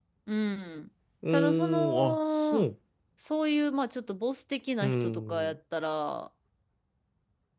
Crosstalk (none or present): present